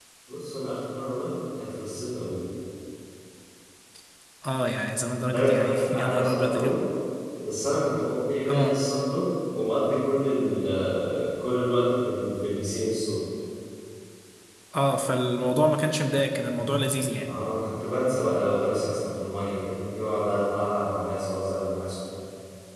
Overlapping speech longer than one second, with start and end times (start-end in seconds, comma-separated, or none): 5.3-6.8